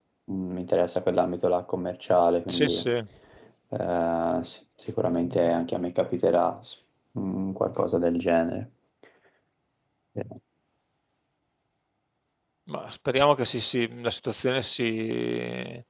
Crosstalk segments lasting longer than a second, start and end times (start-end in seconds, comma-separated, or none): none